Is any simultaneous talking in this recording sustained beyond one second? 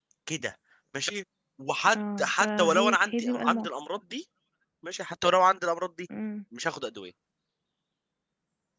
Yes, from 1.9 s

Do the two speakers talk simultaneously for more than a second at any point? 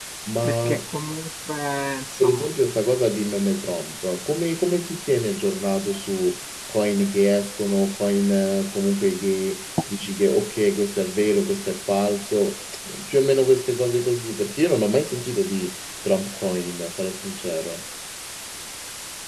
No

